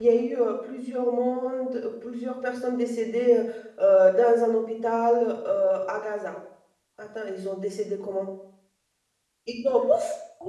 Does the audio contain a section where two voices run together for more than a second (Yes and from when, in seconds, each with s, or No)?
No